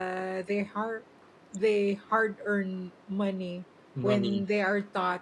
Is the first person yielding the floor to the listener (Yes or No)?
No